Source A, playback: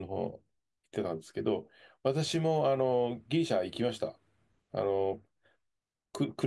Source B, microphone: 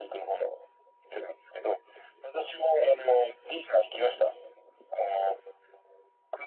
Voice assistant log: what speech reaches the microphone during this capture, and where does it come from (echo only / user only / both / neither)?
echo only